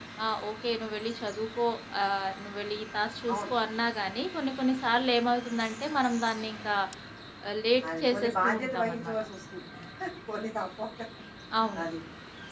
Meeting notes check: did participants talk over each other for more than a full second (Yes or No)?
Yes